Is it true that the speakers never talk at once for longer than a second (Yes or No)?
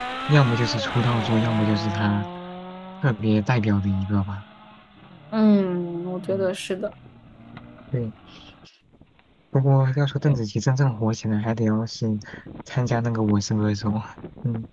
Yes